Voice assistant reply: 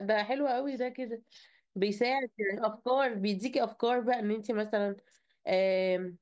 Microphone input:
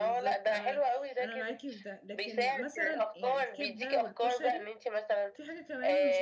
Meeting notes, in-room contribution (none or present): present